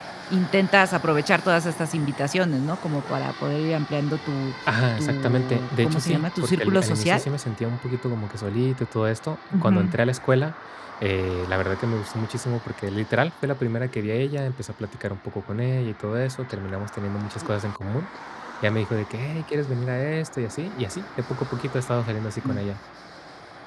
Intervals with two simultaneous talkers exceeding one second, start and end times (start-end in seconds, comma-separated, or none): 5.0-7.2